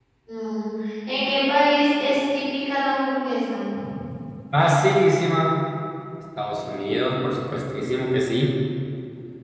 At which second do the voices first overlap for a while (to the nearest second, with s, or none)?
none